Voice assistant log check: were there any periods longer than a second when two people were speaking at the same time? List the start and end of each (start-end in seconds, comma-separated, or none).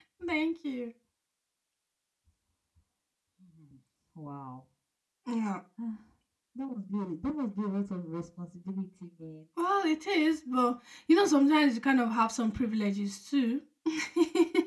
none